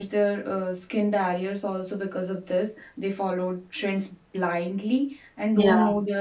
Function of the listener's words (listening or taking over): listening